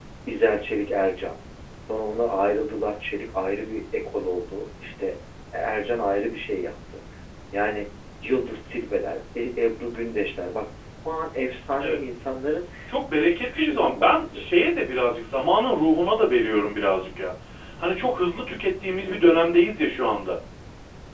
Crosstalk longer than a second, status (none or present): present